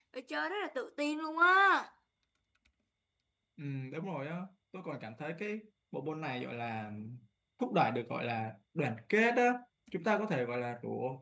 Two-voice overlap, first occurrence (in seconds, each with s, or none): none